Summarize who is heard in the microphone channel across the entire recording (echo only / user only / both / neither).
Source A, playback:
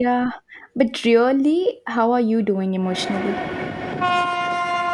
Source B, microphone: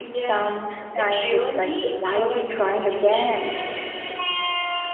both